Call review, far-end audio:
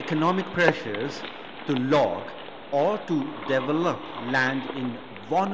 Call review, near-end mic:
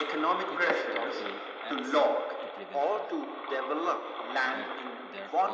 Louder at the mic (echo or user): echo